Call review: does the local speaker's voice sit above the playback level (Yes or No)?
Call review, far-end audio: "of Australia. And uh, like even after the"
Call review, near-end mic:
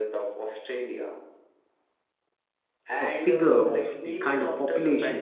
Yes